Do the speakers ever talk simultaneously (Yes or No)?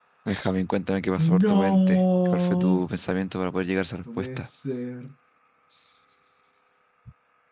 Yes